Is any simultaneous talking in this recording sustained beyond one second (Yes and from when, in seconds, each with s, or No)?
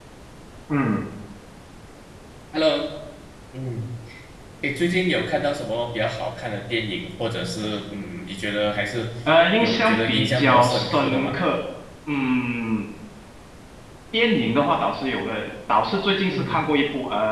Yes, from 9.6 s